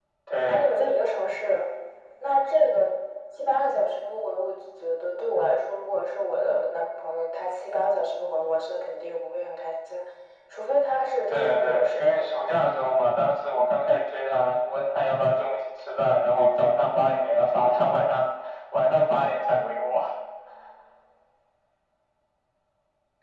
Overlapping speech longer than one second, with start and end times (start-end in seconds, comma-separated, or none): 11.3-12.6